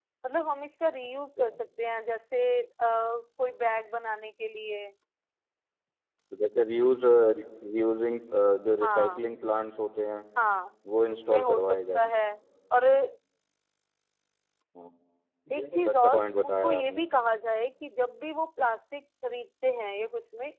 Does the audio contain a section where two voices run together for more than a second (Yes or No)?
Yes